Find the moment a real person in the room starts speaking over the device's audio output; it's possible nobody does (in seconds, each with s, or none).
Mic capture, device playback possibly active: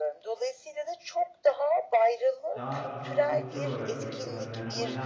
2.5 s